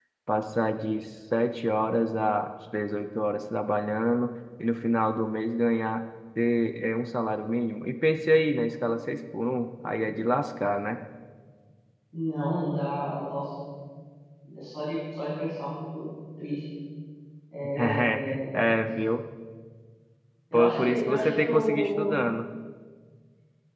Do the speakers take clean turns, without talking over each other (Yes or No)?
No